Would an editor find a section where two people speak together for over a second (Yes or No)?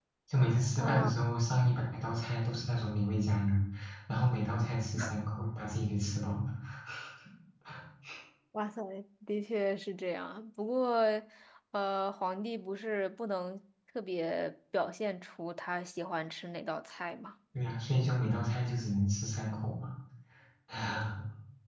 No